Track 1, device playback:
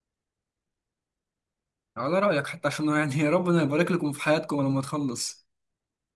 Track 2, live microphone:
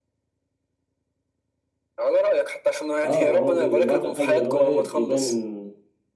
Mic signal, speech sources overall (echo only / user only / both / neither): both